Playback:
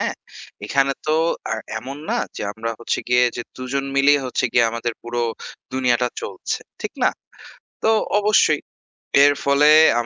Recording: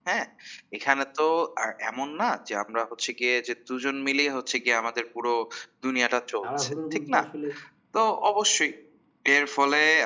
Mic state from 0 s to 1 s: echo only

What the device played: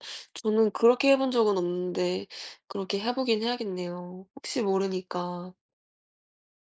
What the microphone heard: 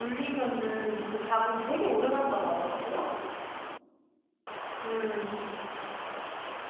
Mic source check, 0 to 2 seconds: user only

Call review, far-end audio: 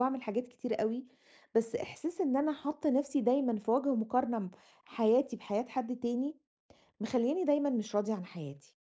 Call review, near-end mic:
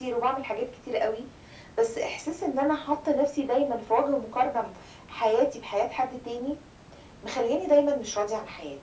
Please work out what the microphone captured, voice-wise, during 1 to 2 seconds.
echo only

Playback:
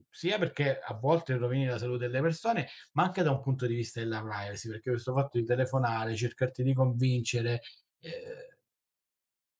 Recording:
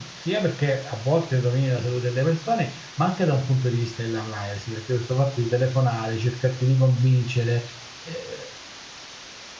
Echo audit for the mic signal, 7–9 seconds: echo only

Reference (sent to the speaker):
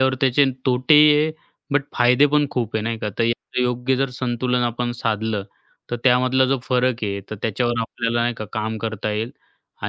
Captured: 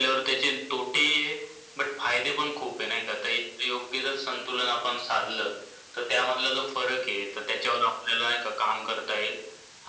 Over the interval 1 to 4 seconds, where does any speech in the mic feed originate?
echo only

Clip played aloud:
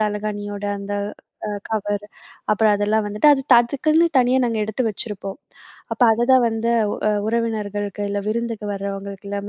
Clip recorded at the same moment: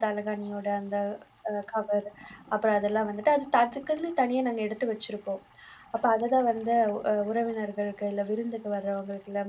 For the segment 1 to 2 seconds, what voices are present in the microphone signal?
echo only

